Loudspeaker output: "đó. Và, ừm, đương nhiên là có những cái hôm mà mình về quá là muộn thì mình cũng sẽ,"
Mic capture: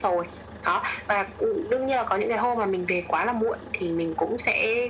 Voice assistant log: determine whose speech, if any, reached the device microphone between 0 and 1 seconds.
echo only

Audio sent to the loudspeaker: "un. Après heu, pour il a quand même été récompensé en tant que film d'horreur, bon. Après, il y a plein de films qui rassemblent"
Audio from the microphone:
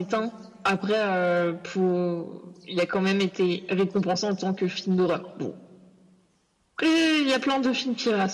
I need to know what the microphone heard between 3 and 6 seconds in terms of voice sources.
echo only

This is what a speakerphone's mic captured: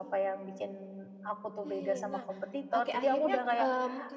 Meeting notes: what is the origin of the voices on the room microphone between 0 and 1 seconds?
echo only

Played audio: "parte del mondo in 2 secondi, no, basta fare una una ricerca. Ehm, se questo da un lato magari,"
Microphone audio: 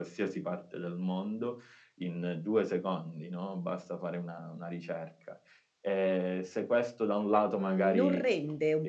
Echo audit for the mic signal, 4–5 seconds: echo only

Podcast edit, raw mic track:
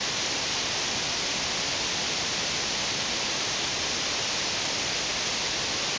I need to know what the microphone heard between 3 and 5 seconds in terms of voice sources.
neither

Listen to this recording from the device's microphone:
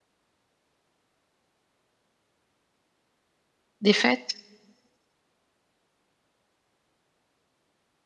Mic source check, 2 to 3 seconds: neither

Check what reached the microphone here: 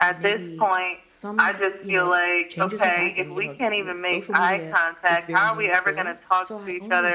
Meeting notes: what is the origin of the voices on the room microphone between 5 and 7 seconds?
both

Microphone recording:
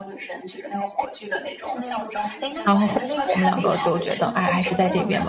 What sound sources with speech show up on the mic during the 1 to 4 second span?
both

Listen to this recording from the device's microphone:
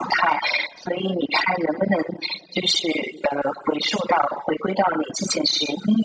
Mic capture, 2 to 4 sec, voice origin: echo only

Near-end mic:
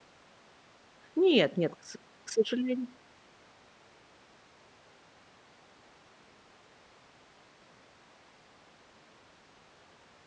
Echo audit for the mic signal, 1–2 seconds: user only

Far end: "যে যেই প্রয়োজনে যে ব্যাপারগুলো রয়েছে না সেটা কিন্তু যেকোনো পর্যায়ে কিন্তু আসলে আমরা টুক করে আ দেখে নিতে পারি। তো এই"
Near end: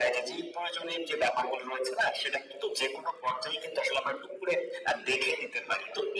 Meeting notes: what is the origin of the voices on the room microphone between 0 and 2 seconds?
echo only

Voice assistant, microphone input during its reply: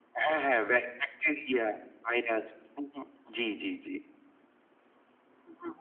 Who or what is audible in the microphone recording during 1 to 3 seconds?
user only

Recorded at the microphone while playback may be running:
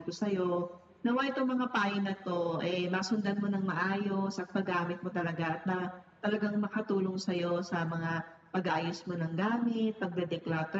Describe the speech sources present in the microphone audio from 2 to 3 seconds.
echo only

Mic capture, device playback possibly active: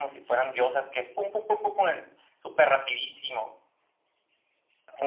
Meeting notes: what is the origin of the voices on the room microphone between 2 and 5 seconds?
echo only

